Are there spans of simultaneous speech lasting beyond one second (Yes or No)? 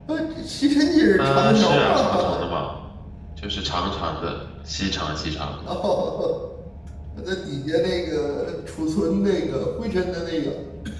Yes